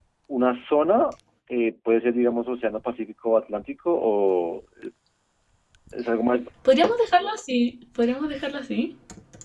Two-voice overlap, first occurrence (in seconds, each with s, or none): none